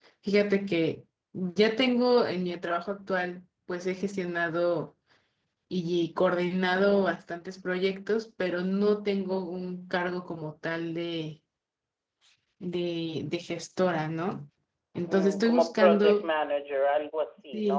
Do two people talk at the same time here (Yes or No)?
Yes